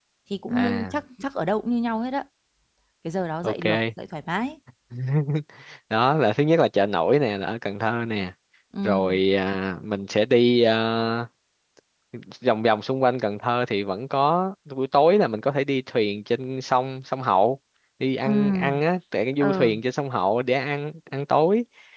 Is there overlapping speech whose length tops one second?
No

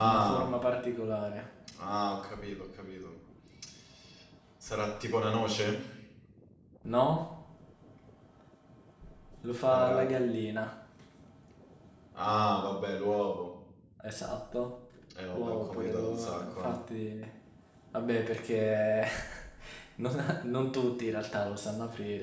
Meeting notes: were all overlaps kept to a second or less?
No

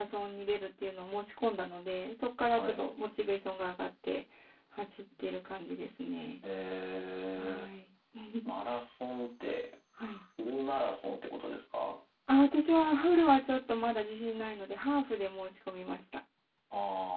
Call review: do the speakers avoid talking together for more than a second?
Yes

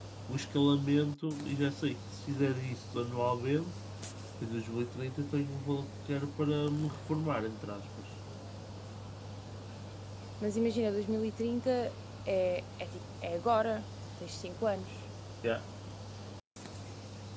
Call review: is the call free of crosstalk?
Yes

